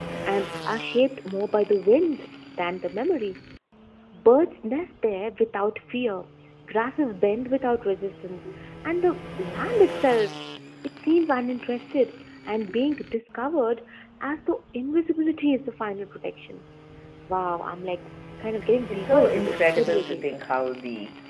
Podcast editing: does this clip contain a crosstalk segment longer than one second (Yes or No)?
Yes